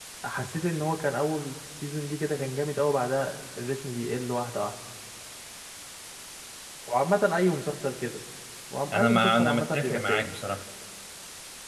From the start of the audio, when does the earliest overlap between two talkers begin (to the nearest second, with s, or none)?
9 s